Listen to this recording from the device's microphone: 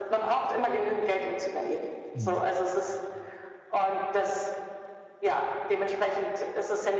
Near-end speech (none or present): present